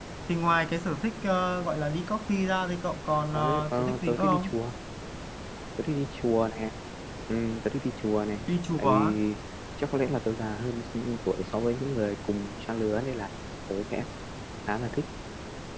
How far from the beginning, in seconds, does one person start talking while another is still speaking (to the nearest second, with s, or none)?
3 s